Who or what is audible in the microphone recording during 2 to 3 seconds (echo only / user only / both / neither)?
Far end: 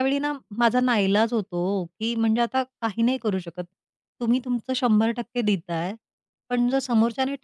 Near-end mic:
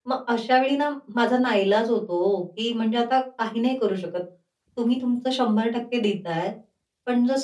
echo only